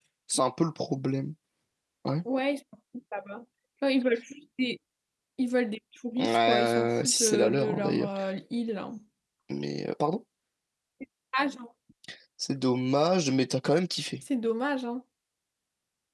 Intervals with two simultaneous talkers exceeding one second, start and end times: 6.2-8.1

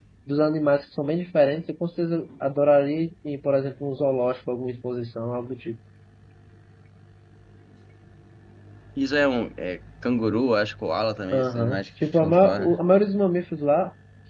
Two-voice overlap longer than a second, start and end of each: 11.3-12.8

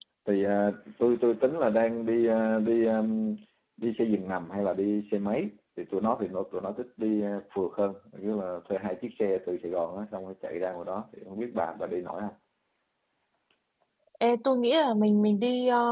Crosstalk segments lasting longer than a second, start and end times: none

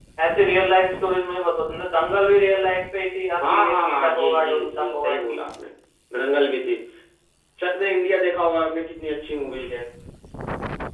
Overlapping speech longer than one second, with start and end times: 3.5-5.4

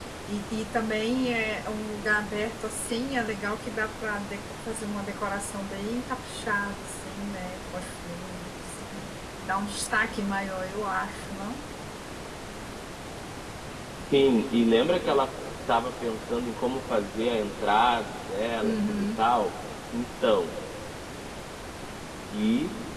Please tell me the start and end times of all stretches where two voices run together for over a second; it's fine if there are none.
none

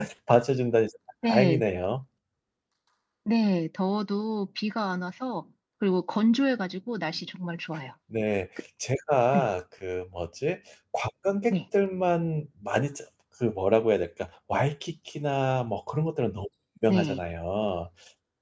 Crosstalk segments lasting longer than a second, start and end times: none

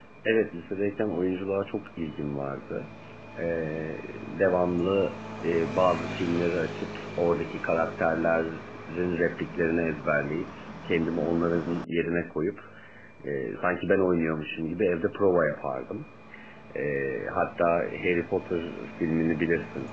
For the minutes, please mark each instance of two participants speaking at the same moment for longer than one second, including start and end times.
none

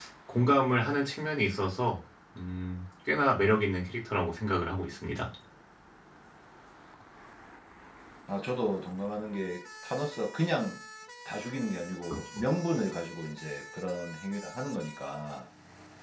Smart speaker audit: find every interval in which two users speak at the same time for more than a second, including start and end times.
none

